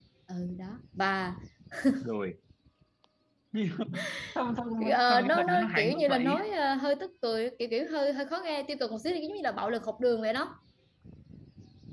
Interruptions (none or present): present